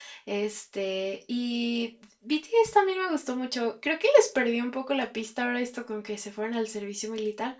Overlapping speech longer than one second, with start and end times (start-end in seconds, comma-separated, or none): none